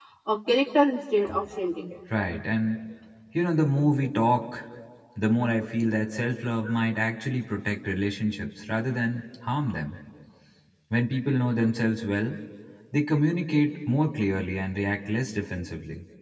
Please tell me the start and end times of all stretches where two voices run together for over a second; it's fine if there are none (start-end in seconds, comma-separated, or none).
none